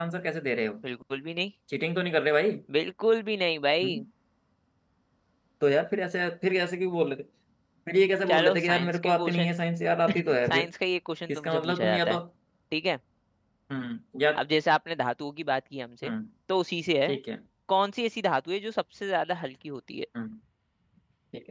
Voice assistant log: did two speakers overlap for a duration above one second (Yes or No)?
Yes